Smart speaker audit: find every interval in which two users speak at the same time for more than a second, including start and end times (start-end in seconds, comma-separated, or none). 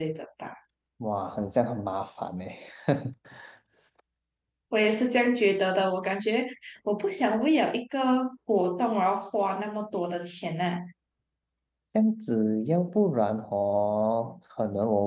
none